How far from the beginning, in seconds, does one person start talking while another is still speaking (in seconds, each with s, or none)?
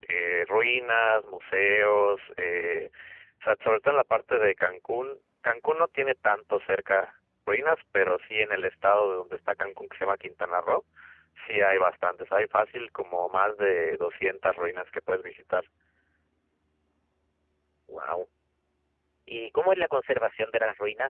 none